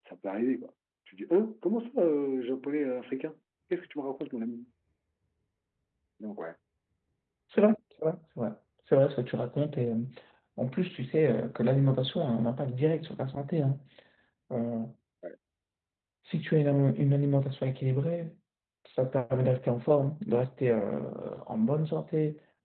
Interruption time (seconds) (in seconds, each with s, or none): none